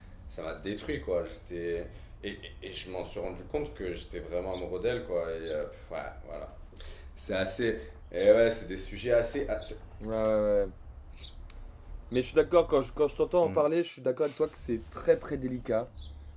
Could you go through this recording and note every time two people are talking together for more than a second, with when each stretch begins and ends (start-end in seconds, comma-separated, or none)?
none